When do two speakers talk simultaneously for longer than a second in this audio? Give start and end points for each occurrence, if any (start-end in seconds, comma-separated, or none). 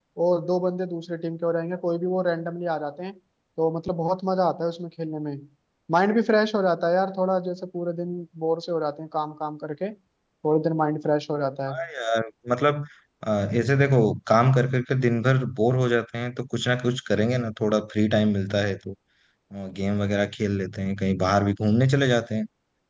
none